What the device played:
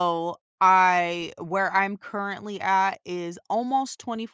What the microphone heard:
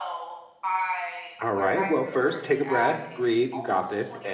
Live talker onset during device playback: 1.4 s

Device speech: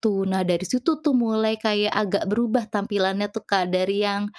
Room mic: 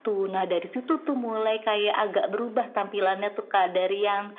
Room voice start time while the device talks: none

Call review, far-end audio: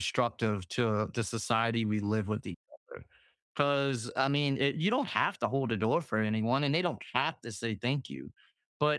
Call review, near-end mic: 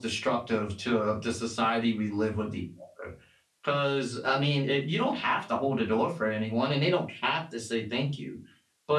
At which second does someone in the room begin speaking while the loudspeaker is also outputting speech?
none

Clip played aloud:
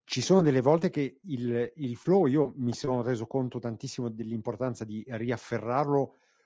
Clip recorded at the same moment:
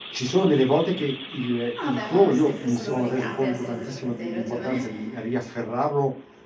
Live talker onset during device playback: 1.8 s

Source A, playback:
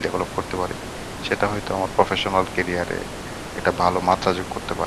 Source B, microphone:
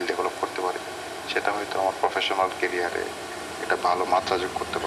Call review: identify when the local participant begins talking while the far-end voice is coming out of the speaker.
none

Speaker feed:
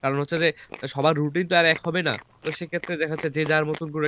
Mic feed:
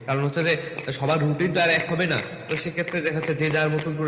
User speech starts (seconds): none

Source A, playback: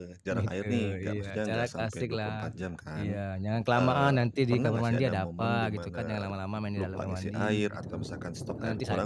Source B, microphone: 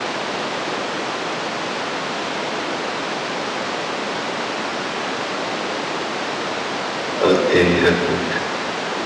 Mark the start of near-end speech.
7.2 s

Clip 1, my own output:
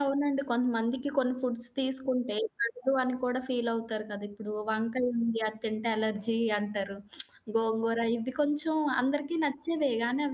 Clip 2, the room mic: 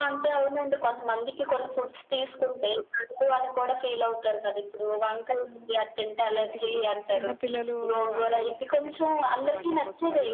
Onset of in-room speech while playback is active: 6.3 s

